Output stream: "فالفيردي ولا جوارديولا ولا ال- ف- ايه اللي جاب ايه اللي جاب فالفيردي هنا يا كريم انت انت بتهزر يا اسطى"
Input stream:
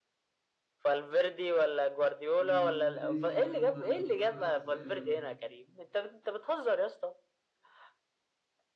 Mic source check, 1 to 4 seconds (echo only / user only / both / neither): both